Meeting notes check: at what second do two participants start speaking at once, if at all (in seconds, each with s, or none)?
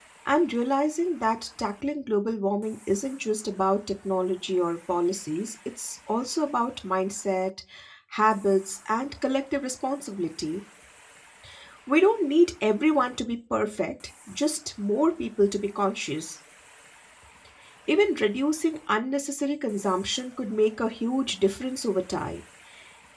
none